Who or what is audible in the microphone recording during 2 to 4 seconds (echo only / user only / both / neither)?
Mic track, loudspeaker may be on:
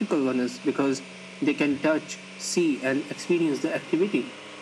echo only